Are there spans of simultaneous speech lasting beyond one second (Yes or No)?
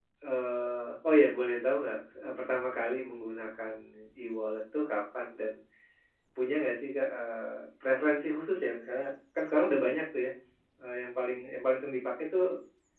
No